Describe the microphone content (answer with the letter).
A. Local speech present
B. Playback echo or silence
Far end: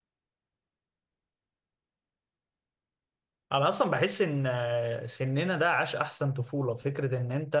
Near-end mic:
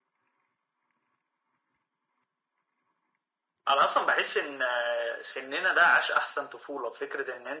B